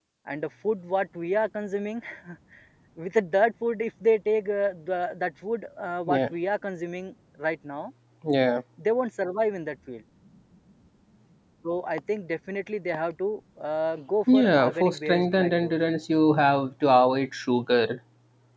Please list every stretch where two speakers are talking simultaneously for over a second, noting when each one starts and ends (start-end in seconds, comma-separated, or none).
14.3-15.7